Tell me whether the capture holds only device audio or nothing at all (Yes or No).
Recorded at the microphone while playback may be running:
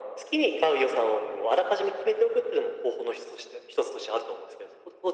Yes